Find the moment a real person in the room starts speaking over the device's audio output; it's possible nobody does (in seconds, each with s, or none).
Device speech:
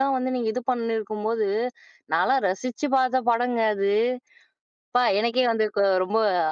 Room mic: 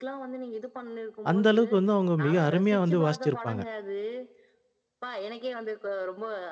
1.3 s